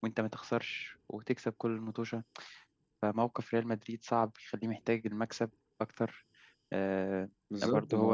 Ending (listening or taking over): taking over